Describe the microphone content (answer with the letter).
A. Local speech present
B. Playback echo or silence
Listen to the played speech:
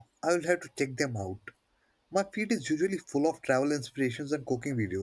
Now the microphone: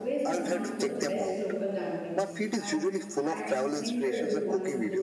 A